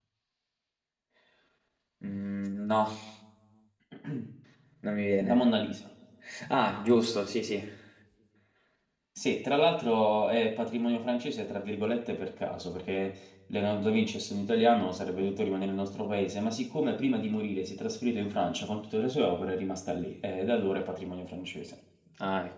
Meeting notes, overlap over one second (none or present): none